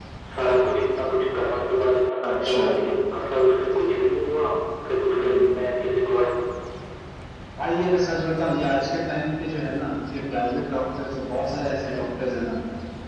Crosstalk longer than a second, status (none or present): none